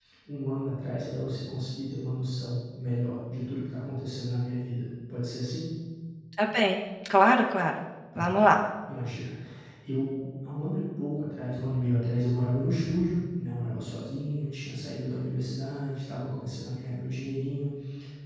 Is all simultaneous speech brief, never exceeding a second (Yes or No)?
Yes